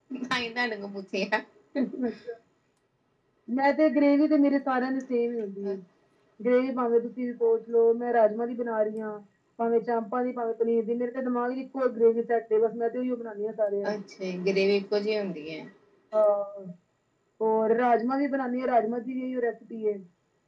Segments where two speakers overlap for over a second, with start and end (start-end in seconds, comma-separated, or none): none